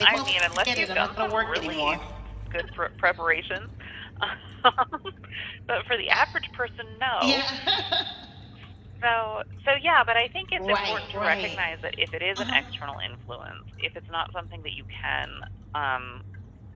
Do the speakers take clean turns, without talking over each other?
No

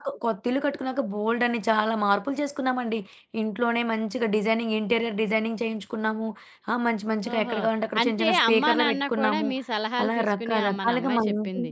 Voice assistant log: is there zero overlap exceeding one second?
No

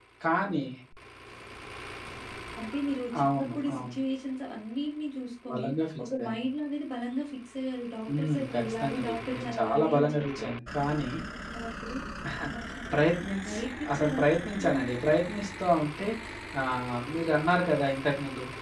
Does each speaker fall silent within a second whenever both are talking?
No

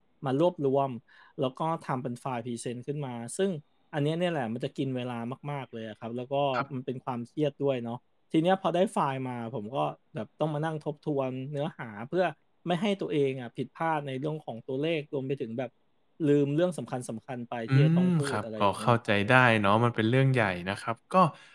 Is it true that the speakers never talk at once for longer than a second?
No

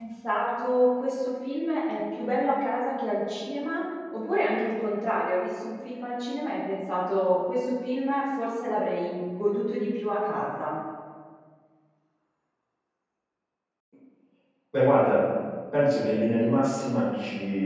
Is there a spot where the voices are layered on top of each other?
No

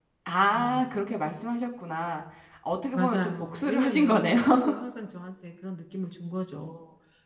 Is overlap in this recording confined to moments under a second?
No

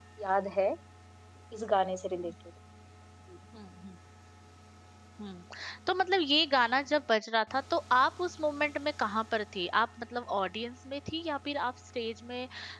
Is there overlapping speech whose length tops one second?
No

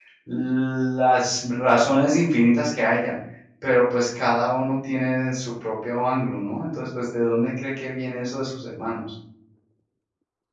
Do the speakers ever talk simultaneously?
No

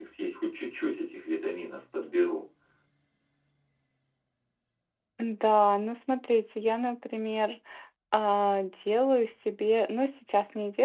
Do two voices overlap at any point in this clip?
No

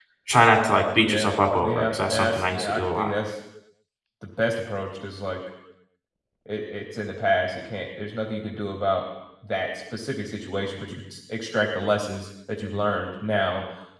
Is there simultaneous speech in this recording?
Yes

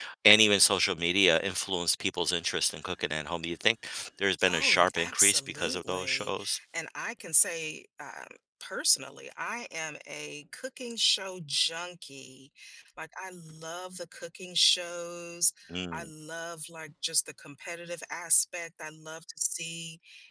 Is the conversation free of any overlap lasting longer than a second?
No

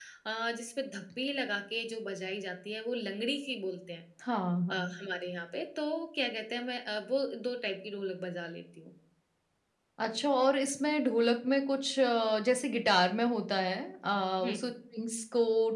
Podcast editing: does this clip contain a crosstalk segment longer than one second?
No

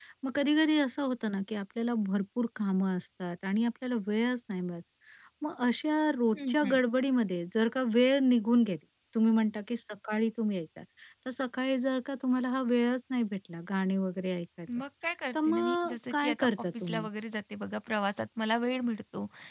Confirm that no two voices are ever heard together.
No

